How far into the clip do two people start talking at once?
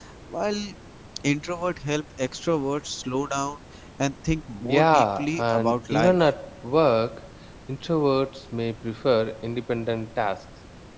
5 s

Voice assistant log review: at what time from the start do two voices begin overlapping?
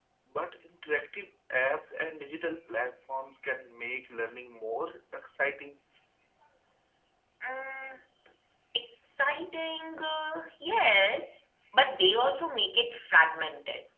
none

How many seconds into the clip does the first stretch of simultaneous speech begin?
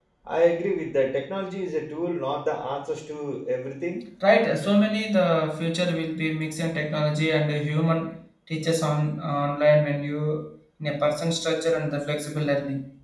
none

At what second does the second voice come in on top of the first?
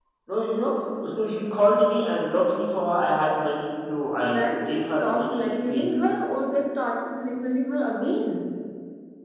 4 s

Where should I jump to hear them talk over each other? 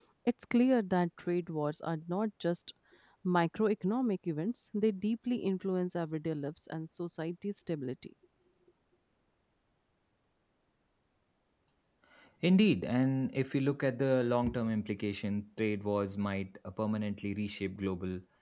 none

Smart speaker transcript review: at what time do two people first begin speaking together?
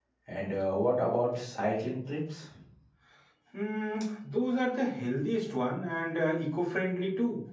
none

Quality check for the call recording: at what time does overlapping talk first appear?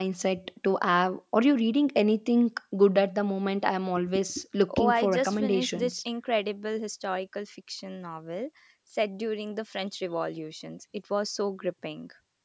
5 s

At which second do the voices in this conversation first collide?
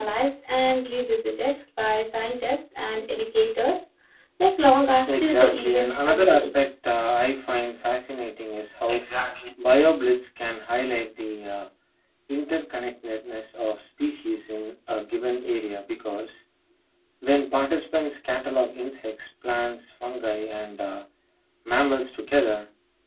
5 s

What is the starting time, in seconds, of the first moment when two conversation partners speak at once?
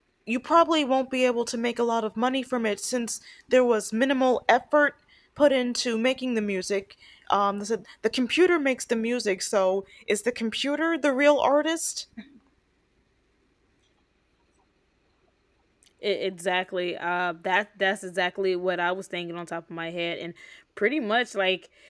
none

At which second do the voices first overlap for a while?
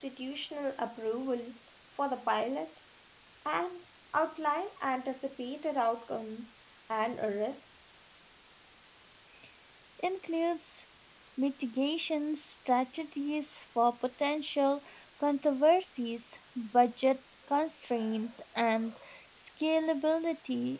none

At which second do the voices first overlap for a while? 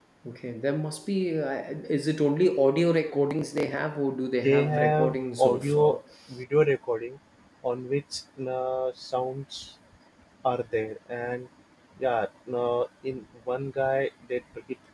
4 s

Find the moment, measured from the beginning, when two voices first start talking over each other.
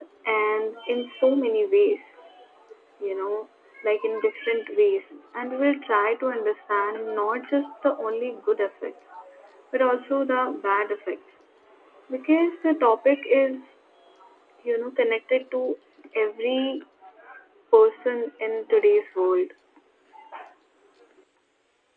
none

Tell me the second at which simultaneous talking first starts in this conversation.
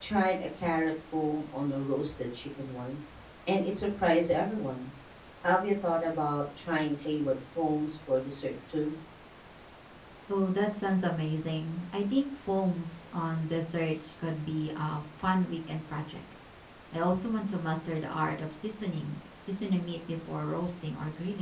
none

